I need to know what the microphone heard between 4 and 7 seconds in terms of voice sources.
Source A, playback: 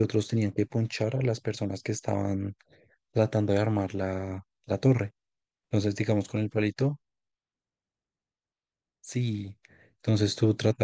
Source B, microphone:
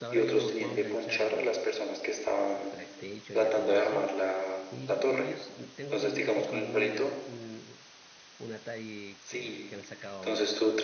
both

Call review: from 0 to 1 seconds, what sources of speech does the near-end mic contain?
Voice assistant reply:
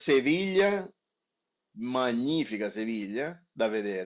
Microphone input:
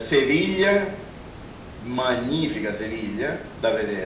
echo only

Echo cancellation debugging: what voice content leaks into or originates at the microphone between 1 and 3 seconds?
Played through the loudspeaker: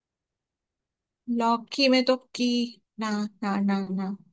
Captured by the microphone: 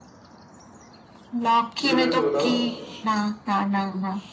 both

